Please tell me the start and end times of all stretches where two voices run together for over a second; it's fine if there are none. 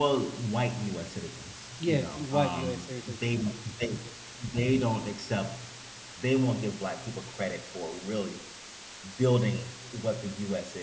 1.9-3.3

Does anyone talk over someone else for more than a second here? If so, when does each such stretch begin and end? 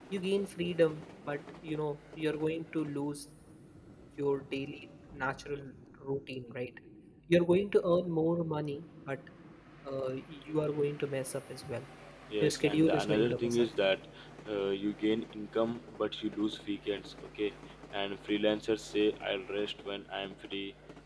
12.4-13.7

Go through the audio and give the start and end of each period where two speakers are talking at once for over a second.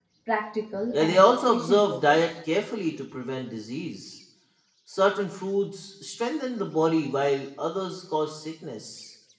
0.9-2.3

